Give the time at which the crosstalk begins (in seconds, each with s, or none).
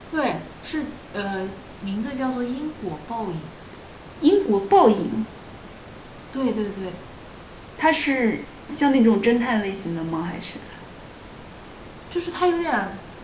none